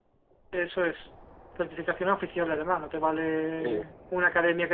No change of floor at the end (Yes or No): Yes